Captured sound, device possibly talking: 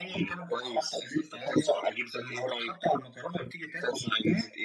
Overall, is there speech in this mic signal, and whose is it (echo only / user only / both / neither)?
echo only